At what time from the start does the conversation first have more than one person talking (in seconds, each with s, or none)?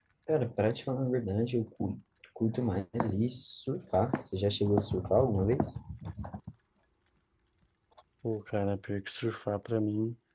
none